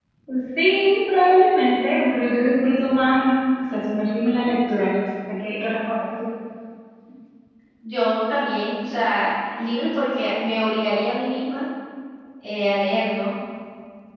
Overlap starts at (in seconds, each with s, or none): none